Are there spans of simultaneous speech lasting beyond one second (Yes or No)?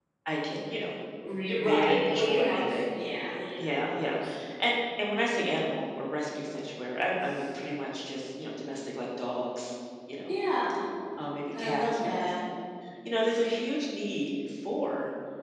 Yes